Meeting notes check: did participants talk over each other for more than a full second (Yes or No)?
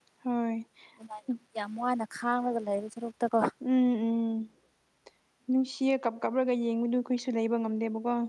No